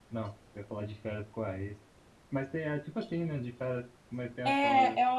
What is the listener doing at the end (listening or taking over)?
taking over